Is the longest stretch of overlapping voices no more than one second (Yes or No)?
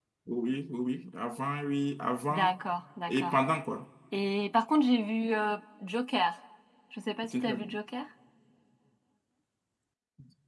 Yes